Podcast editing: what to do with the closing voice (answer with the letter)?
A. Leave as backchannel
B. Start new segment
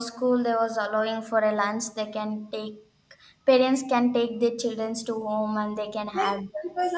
B